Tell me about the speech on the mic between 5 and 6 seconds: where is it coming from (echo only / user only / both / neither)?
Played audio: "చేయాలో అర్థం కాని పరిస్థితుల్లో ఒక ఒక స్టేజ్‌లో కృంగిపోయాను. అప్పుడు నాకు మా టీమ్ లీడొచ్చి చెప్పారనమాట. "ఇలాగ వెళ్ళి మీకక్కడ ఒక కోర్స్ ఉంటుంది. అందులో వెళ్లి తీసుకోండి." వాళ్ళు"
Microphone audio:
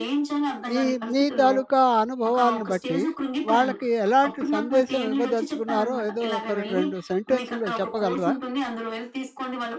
both